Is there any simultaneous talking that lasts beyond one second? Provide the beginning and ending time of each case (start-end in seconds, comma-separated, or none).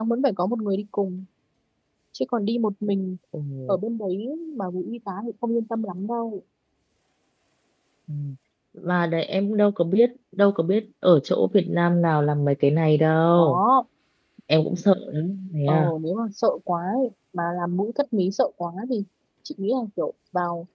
none